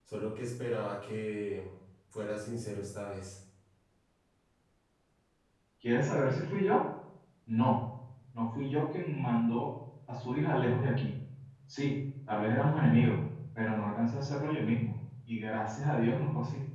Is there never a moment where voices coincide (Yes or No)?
Yes